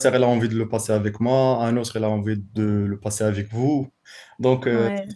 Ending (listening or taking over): listening